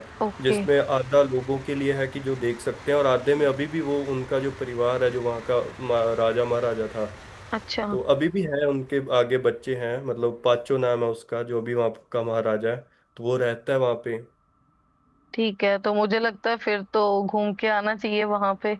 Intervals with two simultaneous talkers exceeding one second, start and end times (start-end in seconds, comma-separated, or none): none